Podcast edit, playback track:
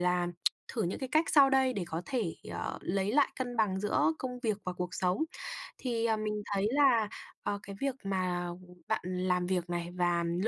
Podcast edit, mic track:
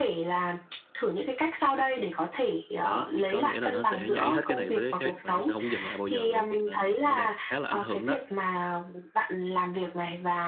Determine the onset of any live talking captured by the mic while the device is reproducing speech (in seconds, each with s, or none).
2.8 s